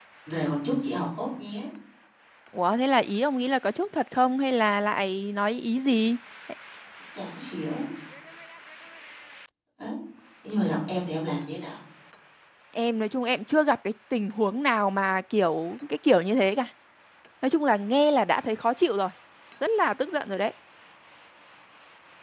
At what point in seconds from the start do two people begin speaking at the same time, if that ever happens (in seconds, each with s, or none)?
none